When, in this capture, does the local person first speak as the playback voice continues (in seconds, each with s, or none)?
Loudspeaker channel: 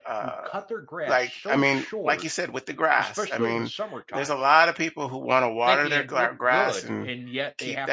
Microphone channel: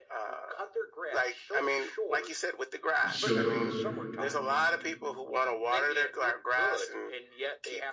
3.1 s